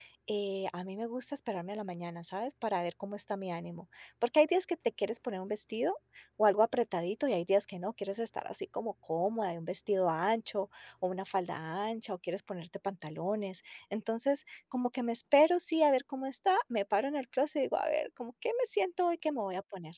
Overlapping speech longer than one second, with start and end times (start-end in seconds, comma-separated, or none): none